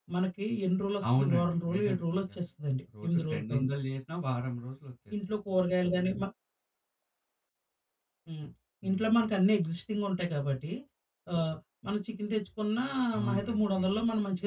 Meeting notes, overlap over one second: present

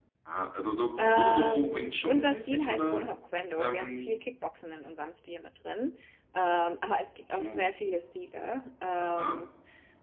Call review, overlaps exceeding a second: present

